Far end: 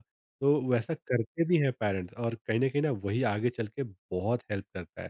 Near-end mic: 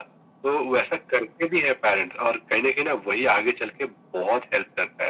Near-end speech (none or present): none